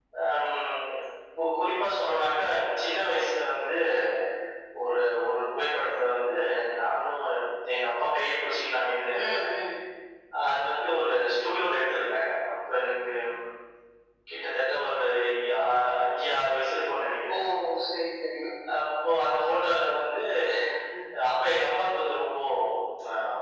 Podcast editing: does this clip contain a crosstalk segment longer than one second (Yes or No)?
No